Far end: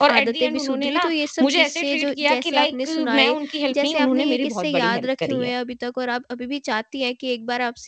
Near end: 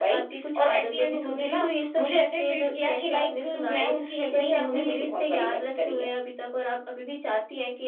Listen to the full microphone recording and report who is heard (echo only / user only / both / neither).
echo only